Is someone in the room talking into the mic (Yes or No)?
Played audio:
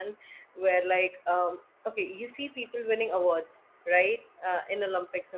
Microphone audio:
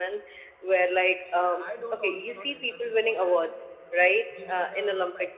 Yes